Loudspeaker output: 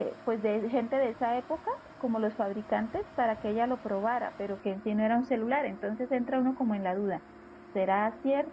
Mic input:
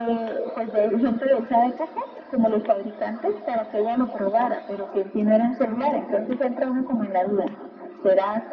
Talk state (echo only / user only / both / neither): both